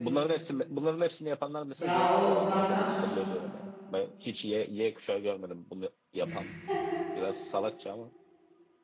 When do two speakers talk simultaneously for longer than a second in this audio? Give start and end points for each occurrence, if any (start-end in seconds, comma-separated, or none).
1.8-3.2